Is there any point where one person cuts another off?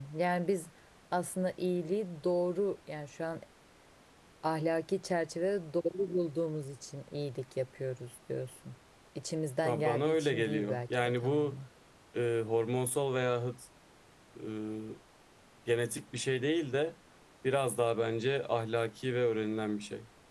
Yes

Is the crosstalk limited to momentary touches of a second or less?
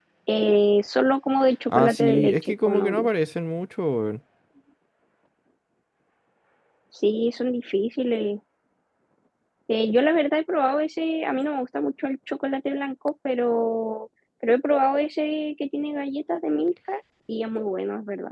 No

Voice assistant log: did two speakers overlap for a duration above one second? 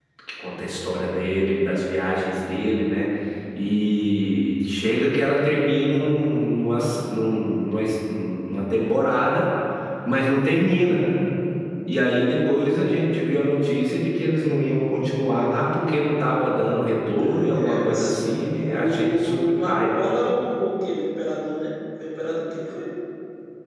Yes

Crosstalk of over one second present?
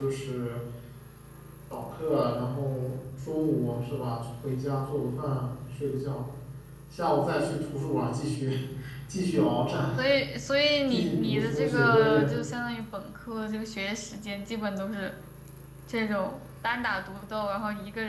Yes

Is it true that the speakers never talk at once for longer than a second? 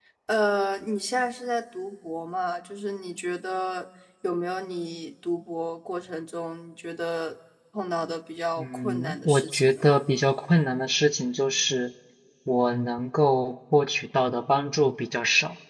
No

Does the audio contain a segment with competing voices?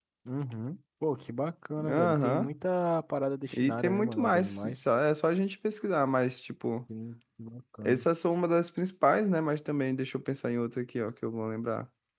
Yes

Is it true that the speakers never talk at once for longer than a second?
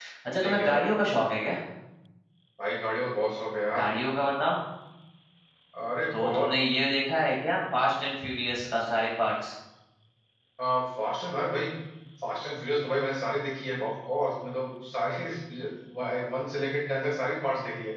Yes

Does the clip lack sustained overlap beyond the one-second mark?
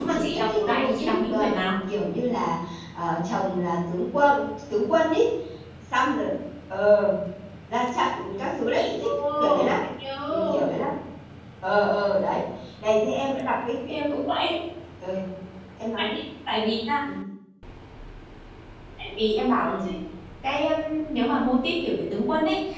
No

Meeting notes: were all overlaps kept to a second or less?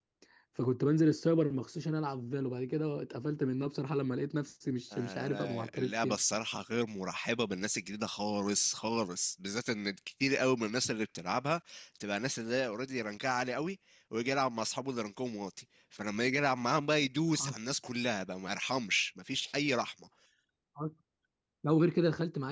No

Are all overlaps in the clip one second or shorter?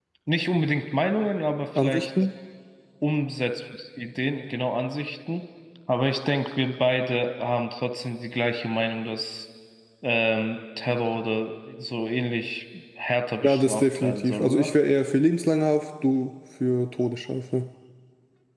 No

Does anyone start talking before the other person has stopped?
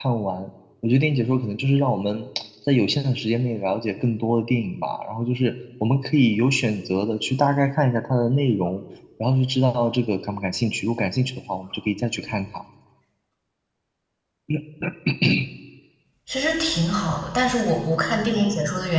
No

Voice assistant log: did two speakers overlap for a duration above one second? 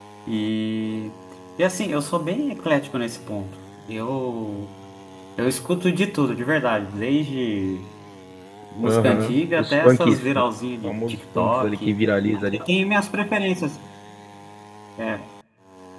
Yes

